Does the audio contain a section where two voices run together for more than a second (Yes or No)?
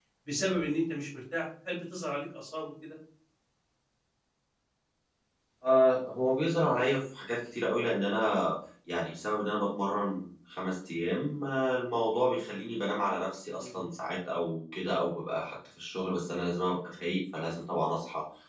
No